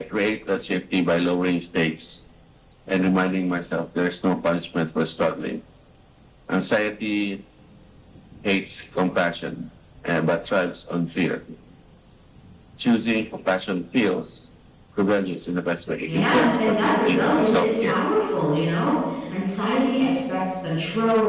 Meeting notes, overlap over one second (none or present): present